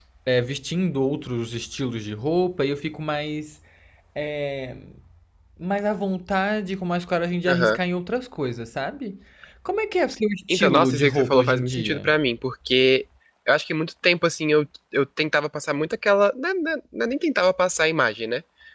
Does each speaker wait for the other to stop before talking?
No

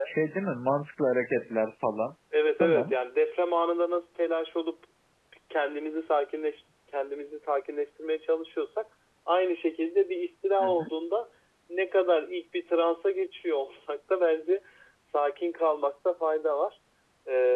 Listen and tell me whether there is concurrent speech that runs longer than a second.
No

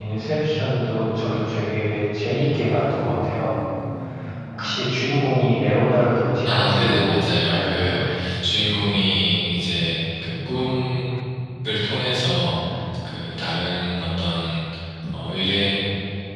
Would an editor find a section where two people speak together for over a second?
Yes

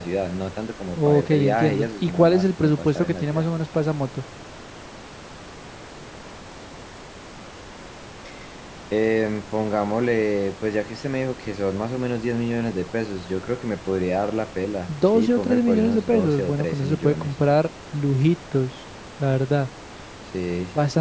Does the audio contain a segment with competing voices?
Yes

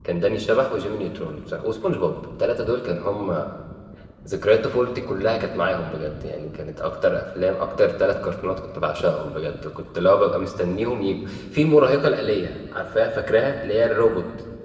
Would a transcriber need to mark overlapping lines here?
No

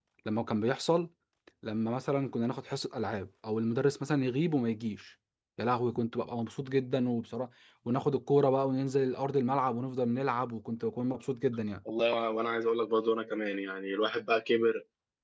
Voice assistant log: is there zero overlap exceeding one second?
Yes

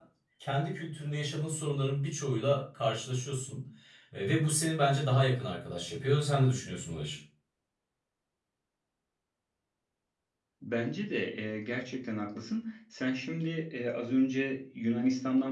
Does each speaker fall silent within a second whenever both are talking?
Yes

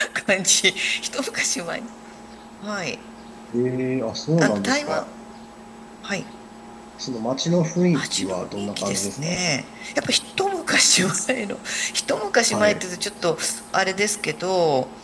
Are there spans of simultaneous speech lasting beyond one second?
Yes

